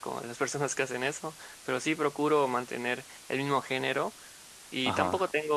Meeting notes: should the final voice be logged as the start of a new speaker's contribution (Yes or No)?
No